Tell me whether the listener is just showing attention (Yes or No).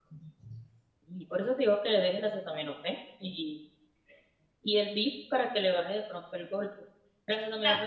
No